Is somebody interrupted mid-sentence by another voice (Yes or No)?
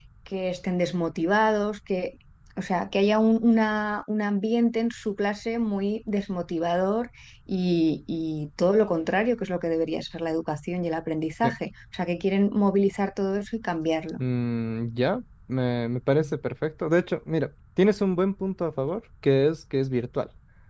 No